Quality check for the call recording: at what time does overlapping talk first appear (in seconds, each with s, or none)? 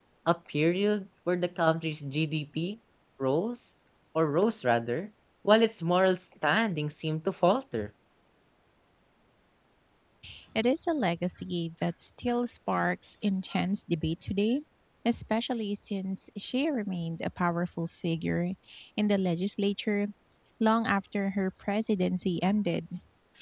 none